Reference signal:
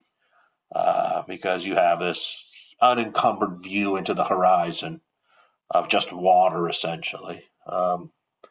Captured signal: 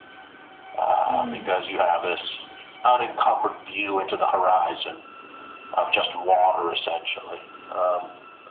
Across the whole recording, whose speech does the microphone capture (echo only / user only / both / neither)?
both